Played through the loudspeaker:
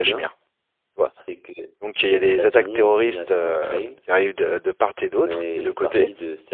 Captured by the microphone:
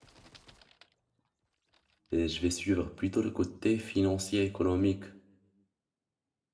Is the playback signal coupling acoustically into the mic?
No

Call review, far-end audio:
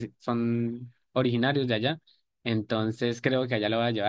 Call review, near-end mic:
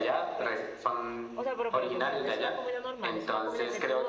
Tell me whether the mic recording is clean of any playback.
No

